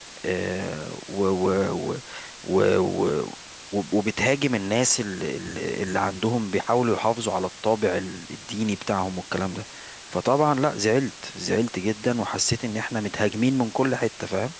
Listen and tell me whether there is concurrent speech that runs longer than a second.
No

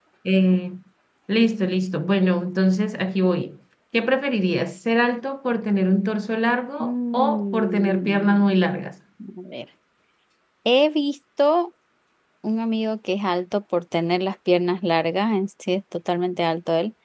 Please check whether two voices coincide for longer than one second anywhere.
Yes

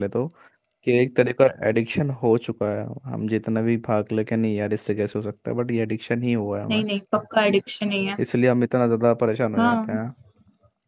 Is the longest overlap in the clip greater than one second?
No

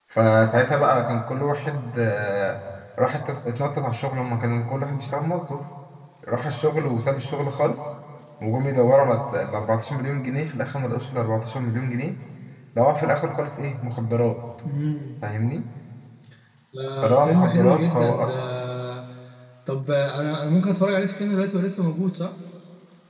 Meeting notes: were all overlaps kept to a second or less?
No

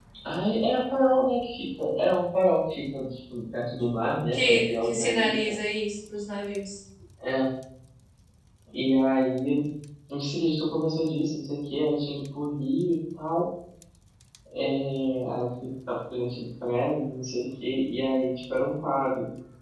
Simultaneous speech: Yes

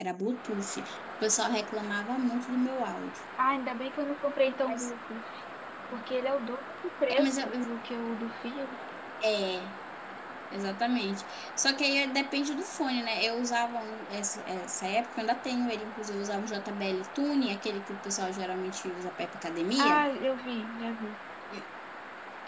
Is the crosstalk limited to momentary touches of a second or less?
Yes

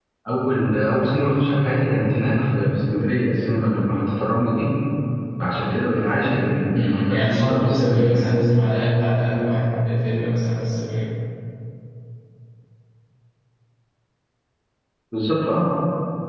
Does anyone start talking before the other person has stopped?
Yes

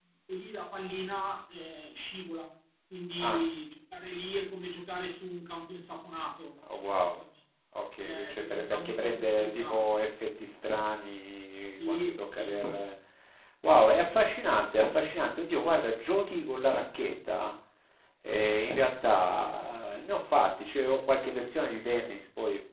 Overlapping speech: Yes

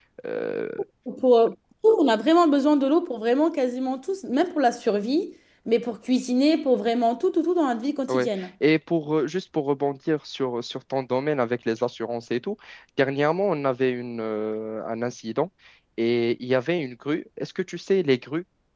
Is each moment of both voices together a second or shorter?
Yes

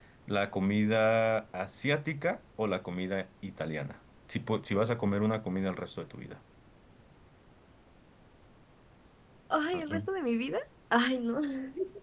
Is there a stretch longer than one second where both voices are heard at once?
No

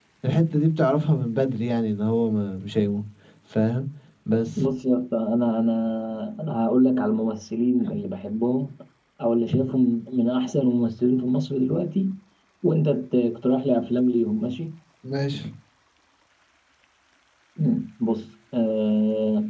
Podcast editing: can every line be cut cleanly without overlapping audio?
Yes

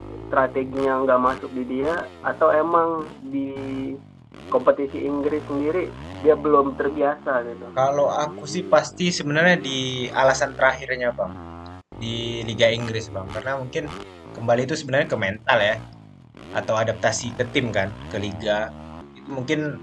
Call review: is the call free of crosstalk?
Yes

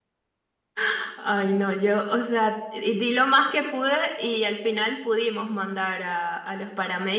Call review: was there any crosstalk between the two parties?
No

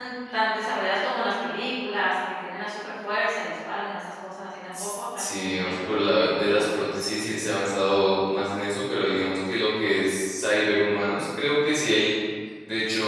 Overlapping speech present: Yes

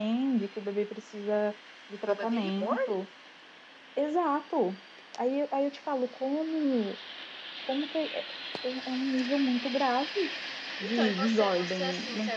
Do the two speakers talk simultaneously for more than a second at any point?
Yes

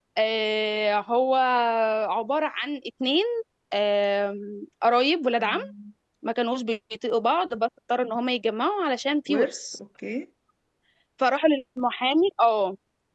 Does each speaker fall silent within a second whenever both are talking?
Yes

